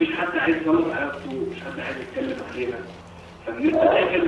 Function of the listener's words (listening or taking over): listening